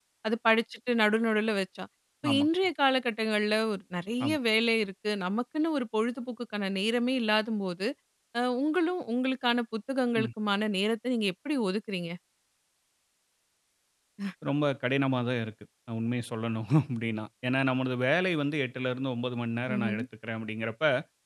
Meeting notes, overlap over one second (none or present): none